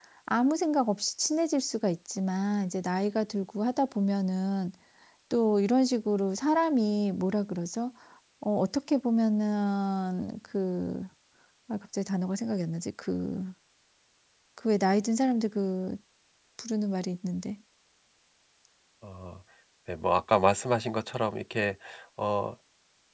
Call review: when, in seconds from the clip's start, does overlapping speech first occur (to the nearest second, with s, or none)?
none